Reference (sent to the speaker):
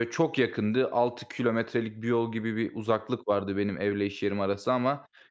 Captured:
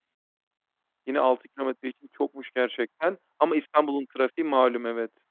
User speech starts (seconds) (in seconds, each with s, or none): 1.1 s